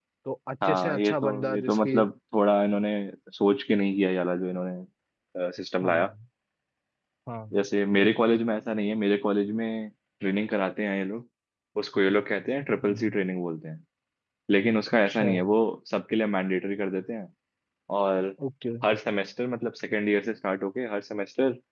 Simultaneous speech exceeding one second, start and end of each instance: 0.6-2.0

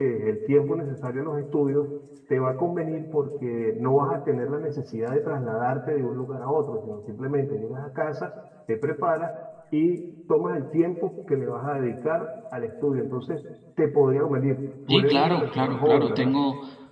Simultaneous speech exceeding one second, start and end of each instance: 14.9-16.3

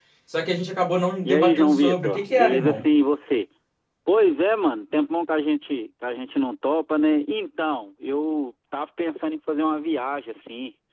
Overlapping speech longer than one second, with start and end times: 1.2-2.8

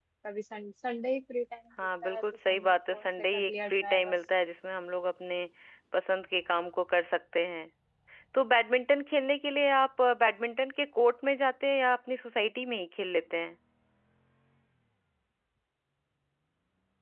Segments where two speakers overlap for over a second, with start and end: 2.0-4.2

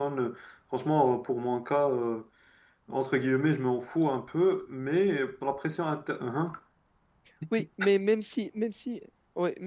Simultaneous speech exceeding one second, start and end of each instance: none

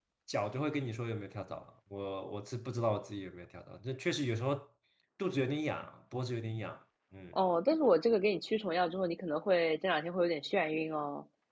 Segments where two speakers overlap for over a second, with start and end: none

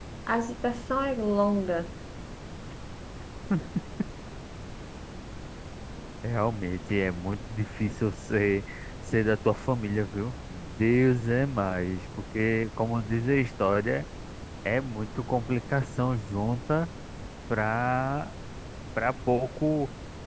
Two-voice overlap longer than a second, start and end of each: none

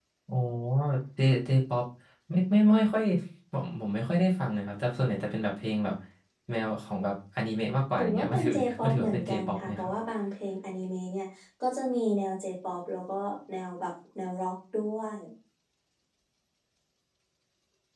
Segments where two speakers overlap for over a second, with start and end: 8.0-9.9

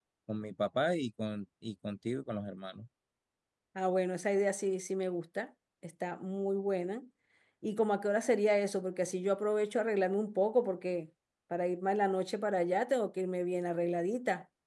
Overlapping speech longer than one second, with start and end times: none

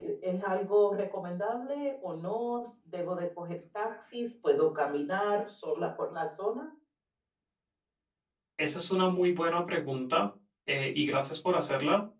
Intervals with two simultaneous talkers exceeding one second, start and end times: none

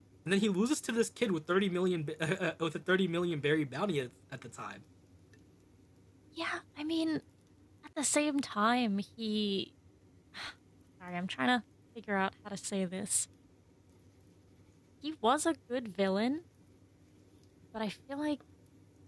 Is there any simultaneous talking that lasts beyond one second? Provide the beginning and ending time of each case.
none

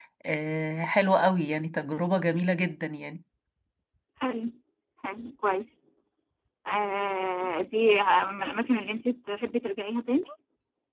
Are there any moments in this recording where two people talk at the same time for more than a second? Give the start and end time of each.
none

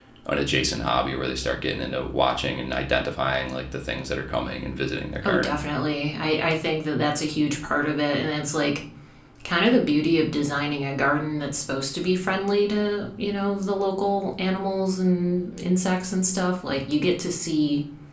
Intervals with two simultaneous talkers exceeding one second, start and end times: none

